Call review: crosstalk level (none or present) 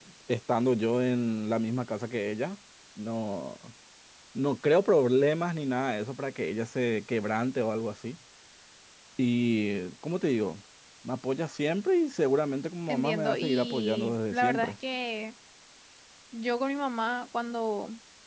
present